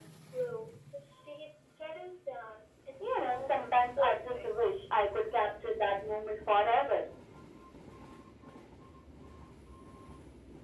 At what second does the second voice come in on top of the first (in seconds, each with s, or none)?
3.3 s